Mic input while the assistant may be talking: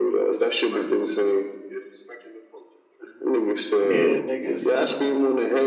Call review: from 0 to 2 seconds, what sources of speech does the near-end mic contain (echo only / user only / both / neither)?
echo only